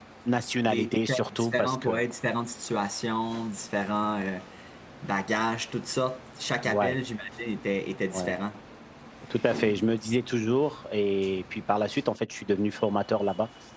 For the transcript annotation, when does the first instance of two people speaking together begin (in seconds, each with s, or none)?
0.7 s